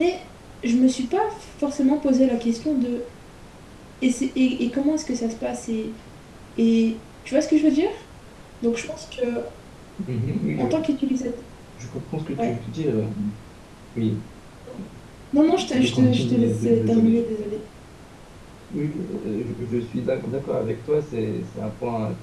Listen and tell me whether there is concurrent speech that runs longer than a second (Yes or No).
Yes